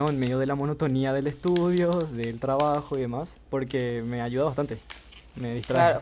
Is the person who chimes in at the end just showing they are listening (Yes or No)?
No